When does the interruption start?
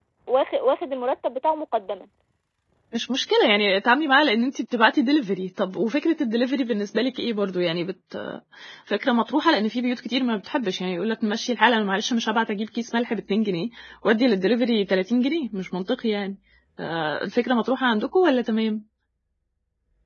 none

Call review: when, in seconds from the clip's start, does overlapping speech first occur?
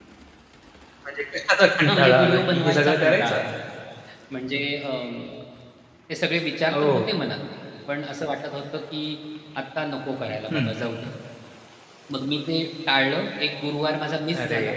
2 s

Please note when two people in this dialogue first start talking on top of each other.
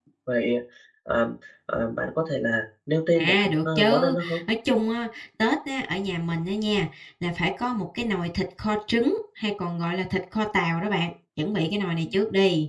3 s

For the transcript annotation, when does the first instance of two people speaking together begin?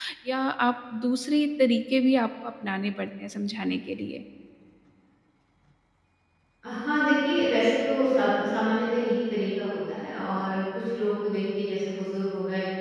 none

